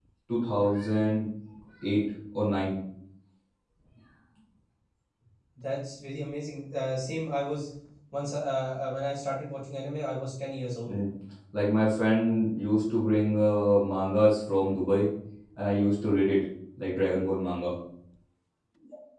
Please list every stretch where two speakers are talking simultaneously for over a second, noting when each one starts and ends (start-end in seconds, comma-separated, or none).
none